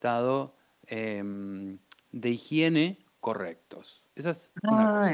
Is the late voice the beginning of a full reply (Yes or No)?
Yes